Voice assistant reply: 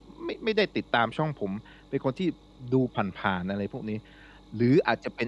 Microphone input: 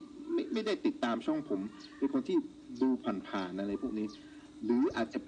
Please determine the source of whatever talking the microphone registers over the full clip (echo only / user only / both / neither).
echo only